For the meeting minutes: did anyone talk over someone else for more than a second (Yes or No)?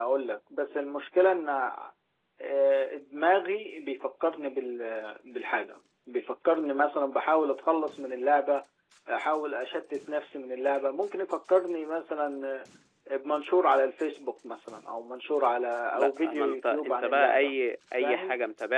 Yes